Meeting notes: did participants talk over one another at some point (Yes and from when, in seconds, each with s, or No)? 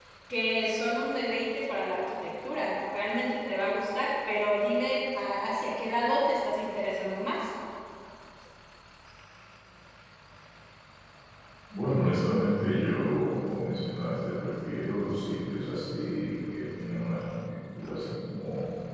No